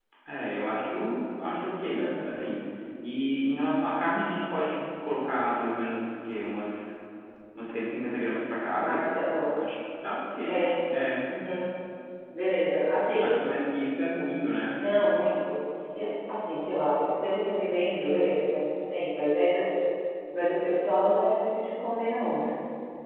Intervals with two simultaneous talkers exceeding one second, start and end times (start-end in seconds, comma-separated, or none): none